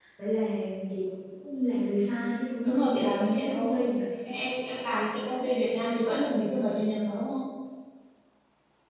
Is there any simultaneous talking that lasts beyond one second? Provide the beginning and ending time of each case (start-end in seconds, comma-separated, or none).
2.6-3.9